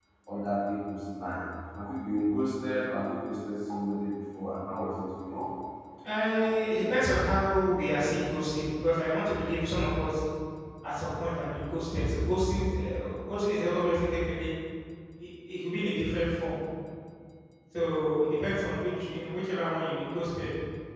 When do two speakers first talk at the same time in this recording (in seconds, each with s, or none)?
none